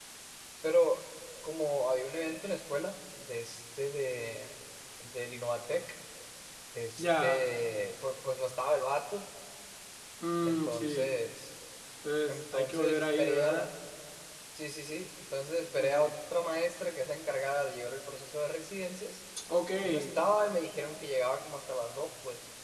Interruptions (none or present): present